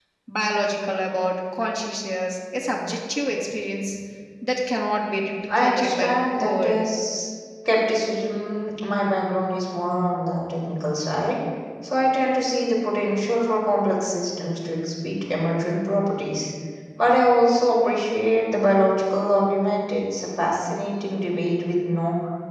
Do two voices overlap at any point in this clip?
Yes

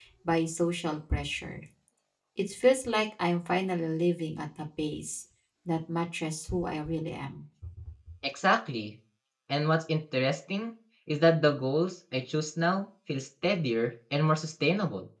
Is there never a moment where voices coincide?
Yes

